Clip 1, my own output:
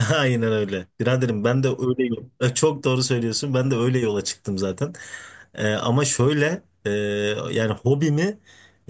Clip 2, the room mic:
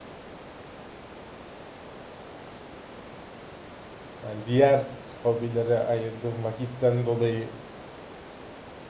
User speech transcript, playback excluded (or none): yani diğer hobilere ayırdığım vakitten dolayı